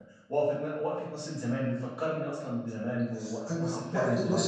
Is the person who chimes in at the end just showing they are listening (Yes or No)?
No